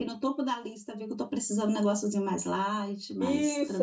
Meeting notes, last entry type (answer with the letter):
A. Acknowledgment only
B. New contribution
B